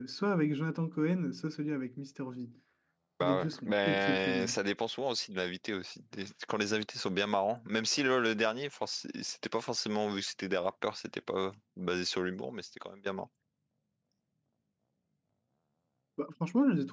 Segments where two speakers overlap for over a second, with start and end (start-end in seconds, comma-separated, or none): 3.2-4.6